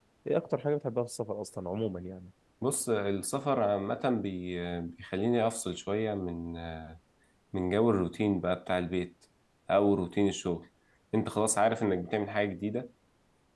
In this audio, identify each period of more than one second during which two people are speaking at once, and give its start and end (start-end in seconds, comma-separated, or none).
none